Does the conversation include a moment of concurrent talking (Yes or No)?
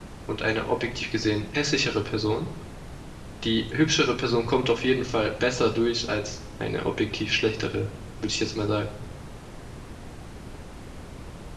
No